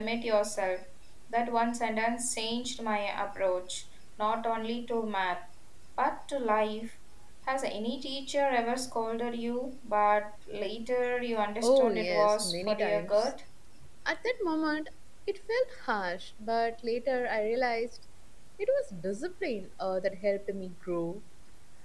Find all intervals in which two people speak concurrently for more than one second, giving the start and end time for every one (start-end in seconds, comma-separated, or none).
11.6-13.3